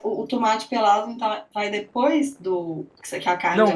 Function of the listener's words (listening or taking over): taking over